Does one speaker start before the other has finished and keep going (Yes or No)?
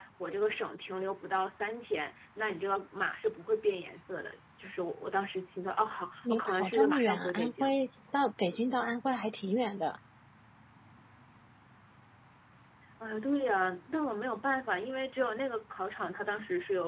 Yes